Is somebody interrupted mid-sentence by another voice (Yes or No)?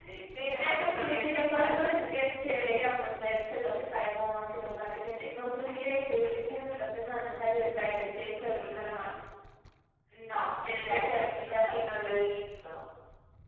Yes